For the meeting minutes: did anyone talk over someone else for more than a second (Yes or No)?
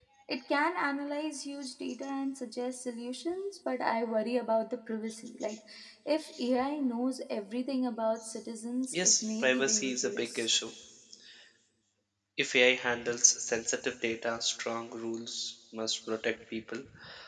Yes